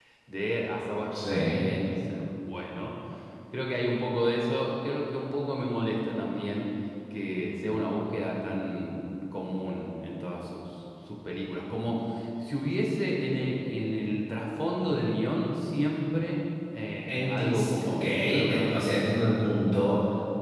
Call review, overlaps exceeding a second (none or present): present